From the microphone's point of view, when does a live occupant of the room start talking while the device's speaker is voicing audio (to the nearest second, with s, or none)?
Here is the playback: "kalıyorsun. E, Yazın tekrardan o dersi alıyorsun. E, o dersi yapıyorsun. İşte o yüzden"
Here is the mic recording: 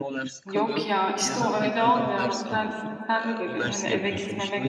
0 s